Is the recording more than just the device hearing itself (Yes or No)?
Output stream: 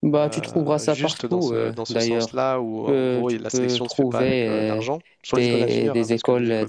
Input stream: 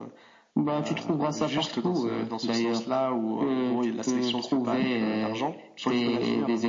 No